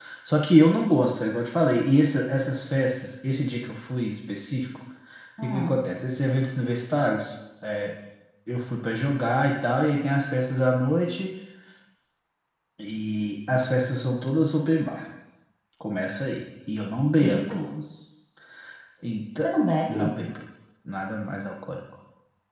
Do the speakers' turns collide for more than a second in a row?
No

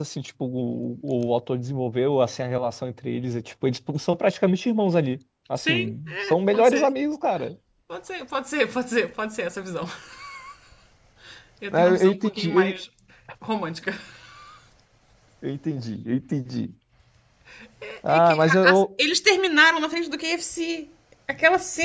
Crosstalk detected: Yes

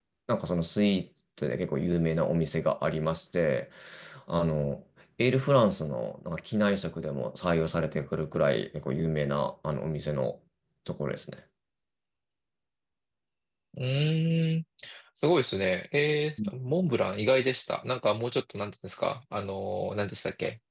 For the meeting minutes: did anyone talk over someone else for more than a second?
No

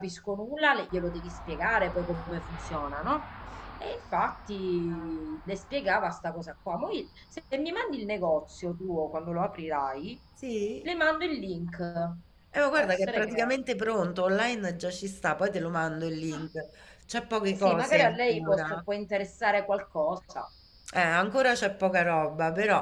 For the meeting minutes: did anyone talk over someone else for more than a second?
Yes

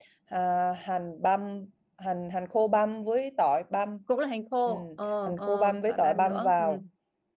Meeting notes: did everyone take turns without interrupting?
No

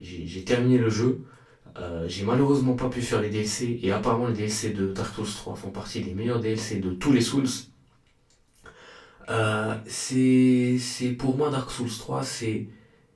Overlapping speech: No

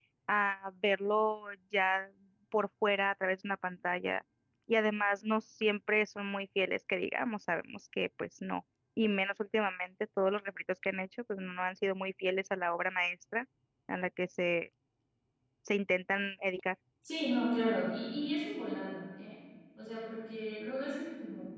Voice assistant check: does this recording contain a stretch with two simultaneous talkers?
No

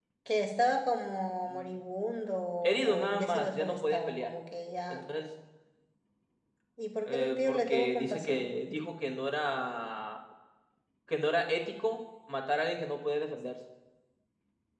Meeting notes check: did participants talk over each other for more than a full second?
Yes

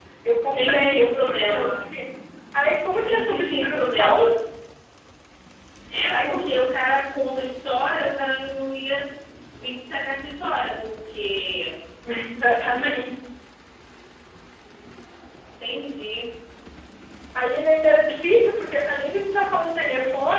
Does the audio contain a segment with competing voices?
Yes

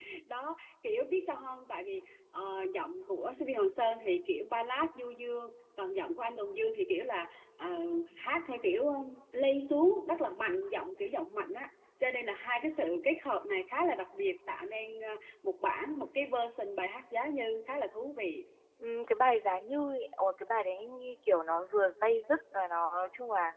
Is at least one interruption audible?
No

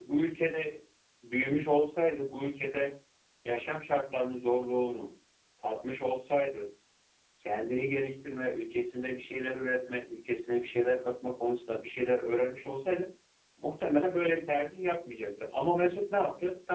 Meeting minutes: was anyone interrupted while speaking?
No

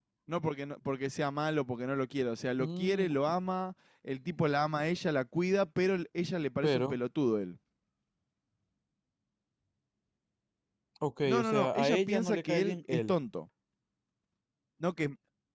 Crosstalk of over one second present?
Yes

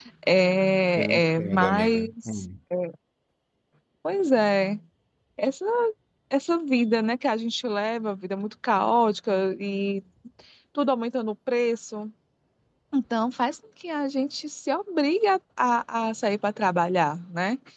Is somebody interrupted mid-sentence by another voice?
Yes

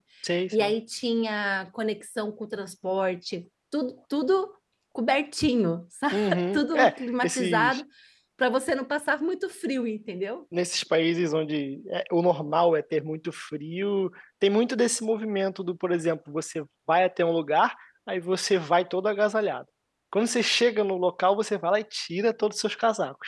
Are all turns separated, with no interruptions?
No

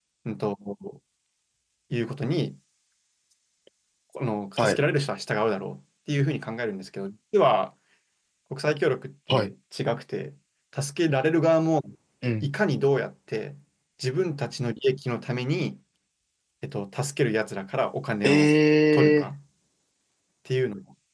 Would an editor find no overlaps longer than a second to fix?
Yes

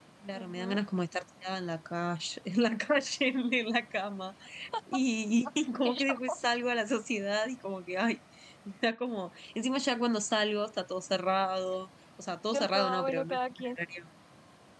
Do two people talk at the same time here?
Yes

